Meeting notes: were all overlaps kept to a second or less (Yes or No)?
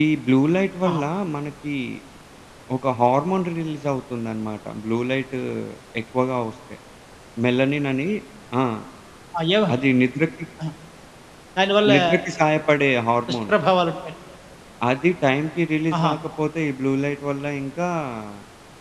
Yes